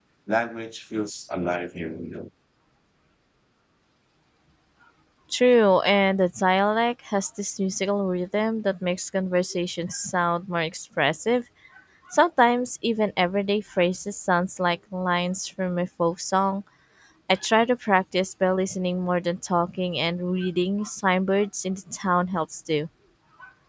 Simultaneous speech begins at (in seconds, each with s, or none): none